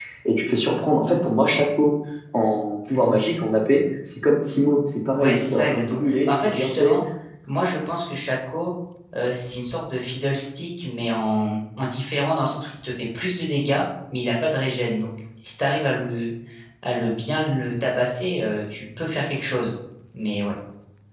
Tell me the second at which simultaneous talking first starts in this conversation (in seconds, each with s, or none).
5.2 s